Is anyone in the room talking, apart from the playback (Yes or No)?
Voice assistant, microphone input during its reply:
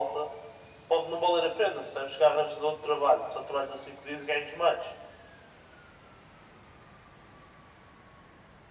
No